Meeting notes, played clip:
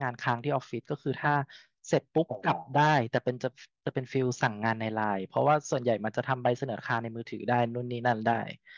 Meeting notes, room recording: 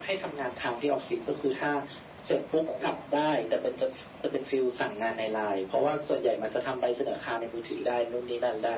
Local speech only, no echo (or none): none